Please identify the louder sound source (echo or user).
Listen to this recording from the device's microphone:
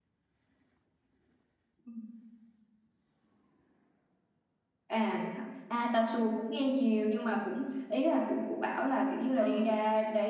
echo